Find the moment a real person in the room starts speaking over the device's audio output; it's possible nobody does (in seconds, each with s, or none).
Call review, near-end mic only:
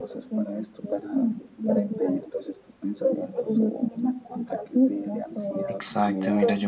5.6 s